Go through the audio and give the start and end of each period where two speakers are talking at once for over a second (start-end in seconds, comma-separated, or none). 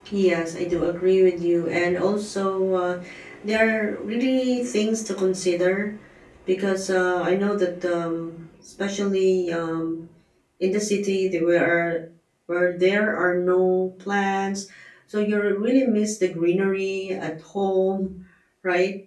none